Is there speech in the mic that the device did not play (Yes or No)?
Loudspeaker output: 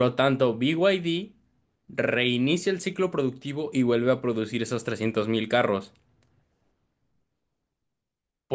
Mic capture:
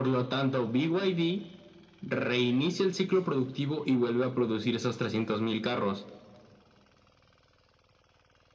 No